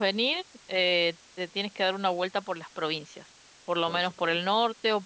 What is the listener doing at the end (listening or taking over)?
listening